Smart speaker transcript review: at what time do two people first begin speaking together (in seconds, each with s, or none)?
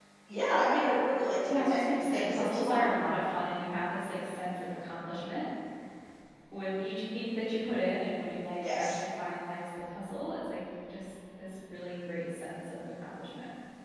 1.5 s